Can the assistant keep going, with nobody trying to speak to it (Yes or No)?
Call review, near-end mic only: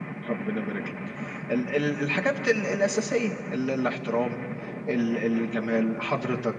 Yes